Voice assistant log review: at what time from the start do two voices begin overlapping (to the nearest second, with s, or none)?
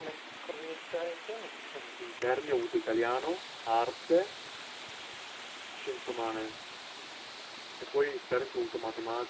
none